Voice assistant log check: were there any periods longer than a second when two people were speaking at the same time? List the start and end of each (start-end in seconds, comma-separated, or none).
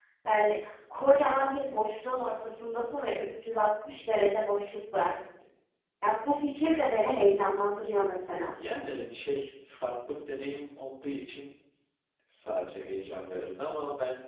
none